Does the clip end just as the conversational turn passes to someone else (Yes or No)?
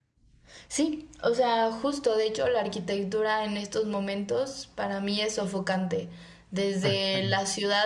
No